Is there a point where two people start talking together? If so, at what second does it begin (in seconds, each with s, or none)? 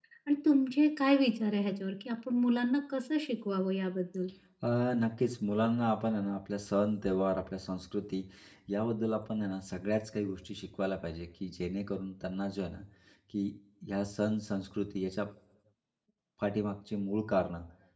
none